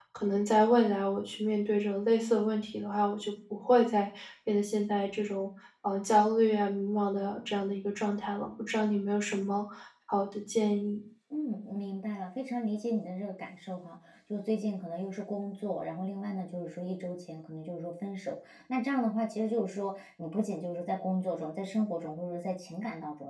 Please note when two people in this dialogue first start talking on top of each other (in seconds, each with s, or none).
none